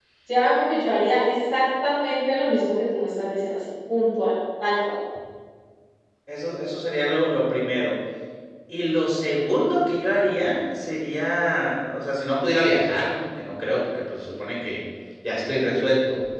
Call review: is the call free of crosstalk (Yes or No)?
Yes